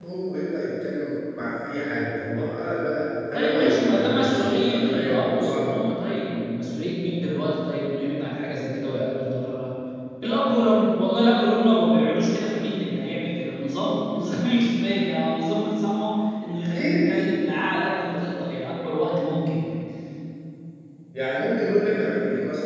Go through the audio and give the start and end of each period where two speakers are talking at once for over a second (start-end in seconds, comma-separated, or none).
3.3-5.6